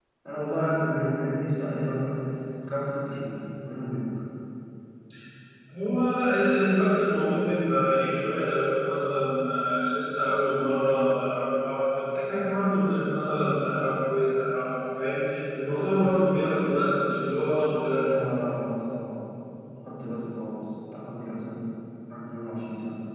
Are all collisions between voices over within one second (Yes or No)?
Yes